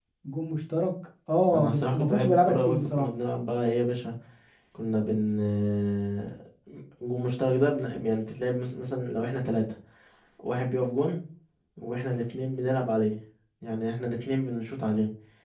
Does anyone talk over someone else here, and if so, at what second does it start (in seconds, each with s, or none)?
1.5 s